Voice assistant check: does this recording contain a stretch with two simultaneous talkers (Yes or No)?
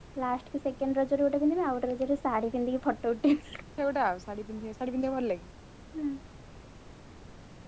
No